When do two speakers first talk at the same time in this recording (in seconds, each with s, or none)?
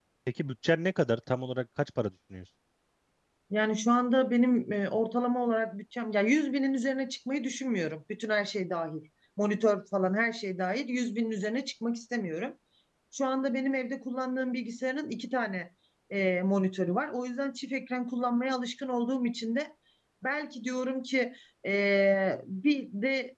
none